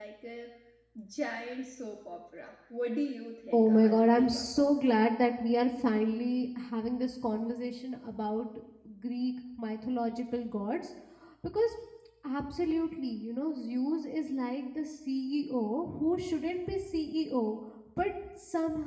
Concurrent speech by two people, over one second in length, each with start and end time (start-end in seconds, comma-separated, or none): 3.5-4.9